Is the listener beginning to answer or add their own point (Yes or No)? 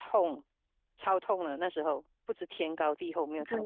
Yes